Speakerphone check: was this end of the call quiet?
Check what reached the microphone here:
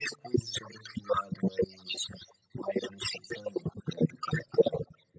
Yes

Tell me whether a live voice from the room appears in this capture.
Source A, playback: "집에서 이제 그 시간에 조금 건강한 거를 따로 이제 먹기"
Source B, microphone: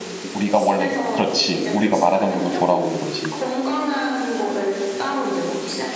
Yes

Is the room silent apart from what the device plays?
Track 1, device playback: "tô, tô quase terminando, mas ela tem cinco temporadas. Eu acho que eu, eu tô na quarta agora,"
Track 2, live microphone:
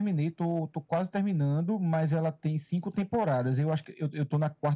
Yes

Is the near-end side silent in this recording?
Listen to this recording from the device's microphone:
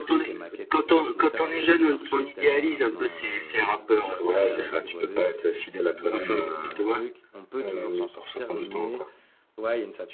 No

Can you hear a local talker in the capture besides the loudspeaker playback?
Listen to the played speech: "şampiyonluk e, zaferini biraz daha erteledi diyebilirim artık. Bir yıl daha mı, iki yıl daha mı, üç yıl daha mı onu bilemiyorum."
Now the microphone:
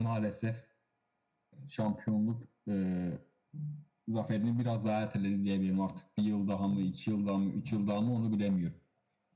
No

